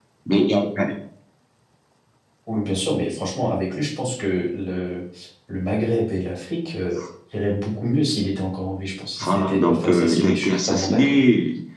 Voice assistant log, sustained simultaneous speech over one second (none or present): present